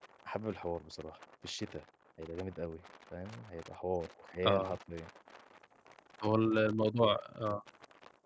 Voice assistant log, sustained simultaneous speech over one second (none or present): none